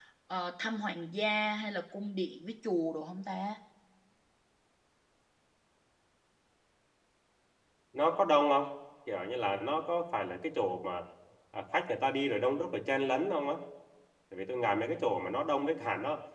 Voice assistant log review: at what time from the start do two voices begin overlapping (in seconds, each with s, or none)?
none